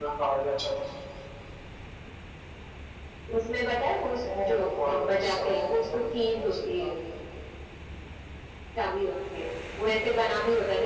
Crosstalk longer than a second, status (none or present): present